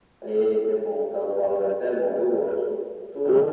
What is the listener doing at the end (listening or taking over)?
taking over